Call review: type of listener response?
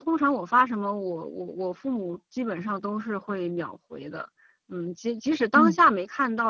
listening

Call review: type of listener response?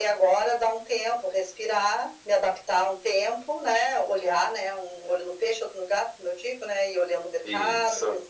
listening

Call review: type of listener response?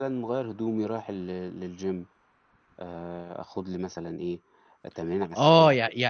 taking over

